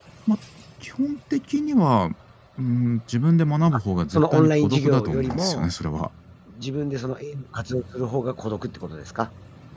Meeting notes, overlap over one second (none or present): present